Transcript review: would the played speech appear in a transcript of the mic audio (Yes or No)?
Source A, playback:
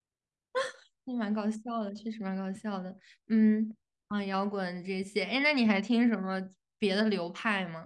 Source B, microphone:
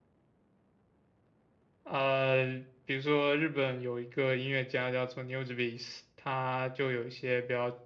No